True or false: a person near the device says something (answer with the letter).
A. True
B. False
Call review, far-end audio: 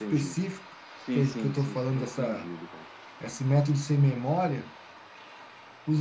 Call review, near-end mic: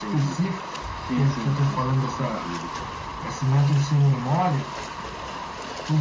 B